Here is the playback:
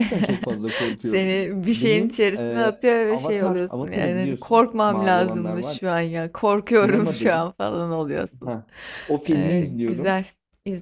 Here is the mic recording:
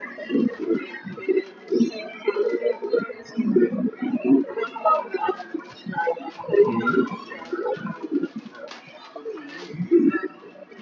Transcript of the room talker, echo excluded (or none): Hı hı.